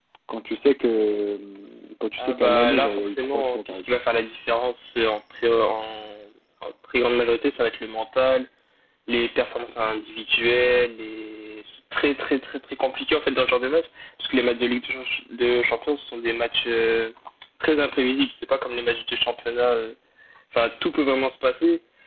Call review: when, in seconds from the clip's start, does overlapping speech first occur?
2 s

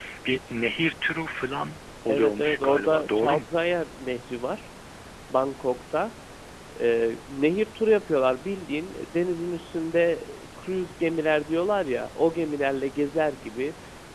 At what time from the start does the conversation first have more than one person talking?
2 s

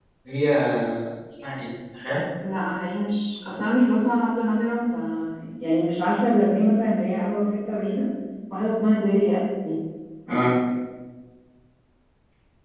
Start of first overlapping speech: none

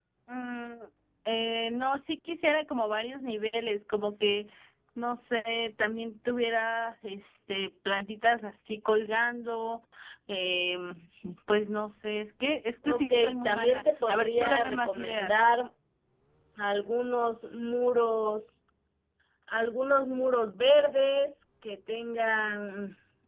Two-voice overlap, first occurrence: 13 s

